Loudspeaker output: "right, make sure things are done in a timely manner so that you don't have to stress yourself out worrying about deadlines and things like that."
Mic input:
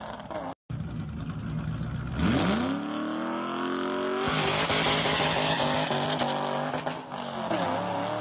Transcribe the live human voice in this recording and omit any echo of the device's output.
none

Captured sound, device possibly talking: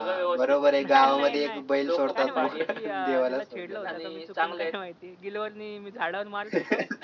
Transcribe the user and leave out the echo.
नाही, नाही, नाही. काय माहिती ती अ, तिला छेडलं होतं का मी चुकून काय माहिती. गिलोयनी मी झाडावर मारत होतो.

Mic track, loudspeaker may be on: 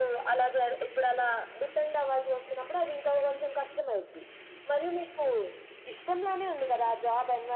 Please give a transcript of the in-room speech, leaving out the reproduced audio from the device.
none

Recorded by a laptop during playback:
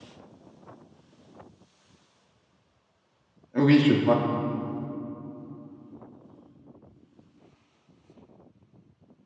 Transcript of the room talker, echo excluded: Oui, je vois.

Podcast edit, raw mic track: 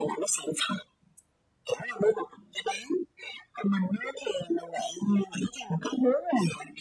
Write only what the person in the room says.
none

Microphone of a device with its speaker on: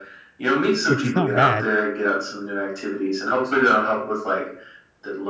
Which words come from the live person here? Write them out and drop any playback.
which is not bad

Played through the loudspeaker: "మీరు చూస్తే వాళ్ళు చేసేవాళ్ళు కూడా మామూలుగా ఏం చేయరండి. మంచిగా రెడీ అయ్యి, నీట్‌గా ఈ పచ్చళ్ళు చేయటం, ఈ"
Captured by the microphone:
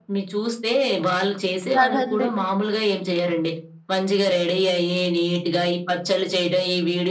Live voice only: కాదండి.

